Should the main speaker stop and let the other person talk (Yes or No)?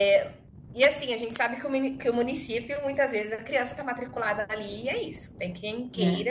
No